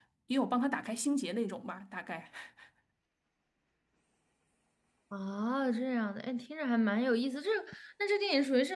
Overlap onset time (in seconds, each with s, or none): none